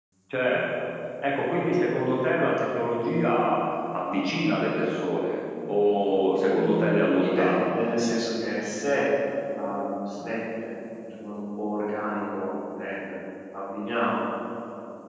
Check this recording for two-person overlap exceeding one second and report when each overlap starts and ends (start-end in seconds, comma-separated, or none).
6.5-7.7